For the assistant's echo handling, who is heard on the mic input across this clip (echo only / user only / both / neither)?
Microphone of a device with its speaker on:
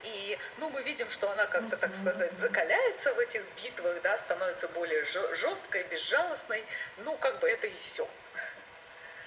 both